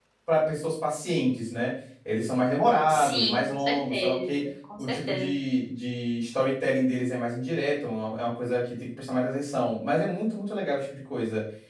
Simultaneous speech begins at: 2.9 s

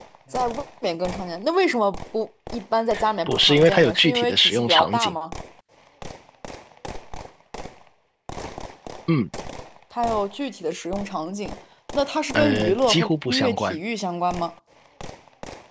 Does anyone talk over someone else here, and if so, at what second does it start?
3.3 s

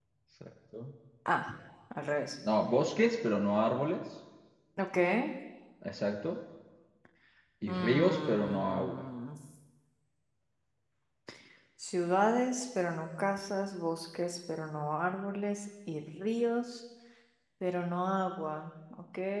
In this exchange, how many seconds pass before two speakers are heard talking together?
7.7 s

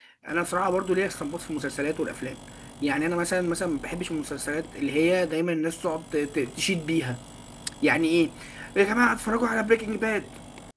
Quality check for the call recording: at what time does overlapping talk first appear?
none

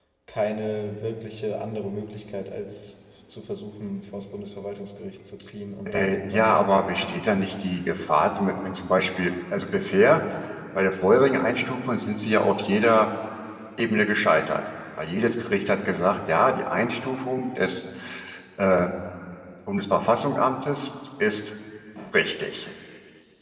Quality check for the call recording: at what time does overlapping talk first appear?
5.9 s

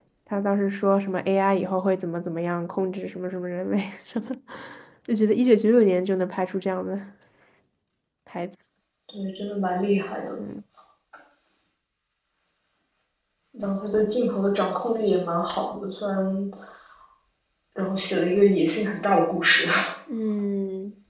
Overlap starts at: none

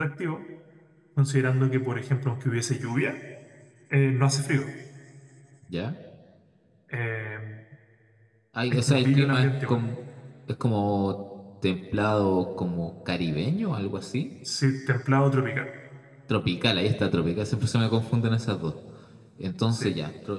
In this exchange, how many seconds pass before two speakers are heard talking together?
8.7 s

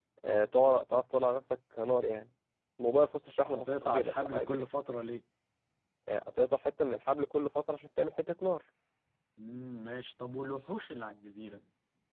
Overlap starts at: 3.5 s

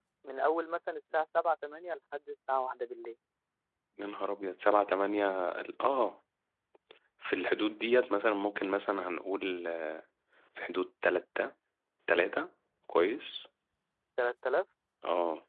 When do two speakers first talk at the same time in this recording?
none

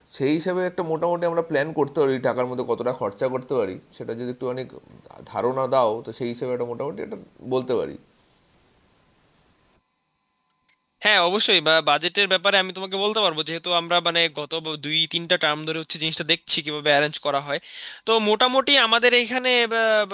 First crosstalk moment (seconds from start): none

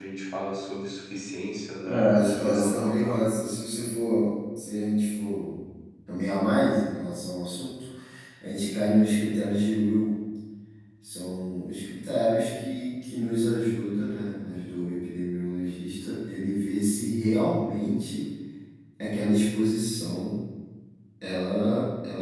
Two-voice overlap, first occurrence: 1.9 s

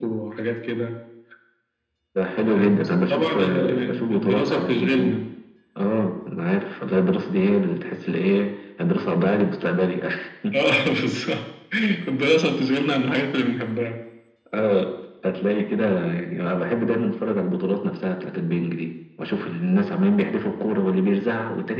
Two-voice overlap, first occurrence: 2.5 s

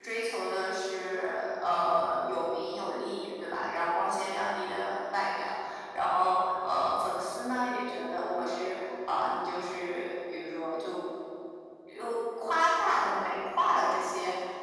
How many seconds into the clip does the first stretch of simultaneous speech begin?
none

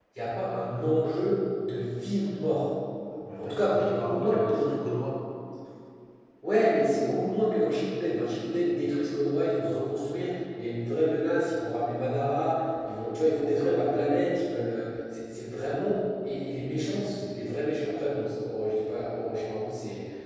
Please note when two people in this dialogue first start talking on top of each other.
3.4 s

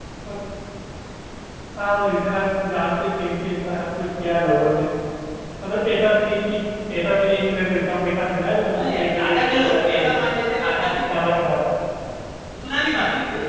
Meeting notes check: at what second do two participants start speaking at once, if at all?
8.7 s

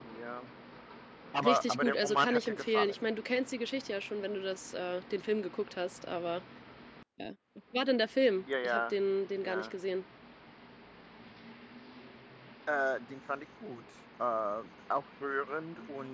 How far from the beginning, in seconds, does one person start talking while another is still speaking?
1.4 s

